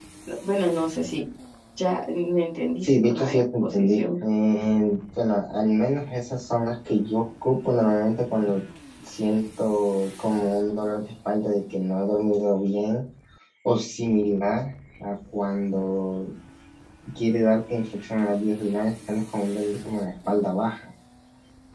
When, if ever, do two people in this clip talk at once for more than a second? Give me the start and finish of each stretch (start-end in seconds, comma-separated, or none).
2.8-4.0